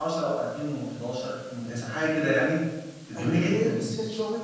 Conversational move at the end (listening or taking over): taking over